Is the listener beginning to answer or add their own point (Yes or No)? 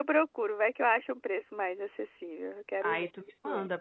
Yes